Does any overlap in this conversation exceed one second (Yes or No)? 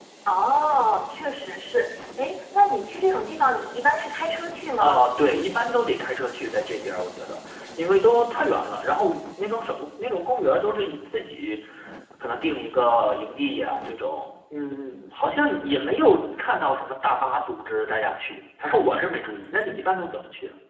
No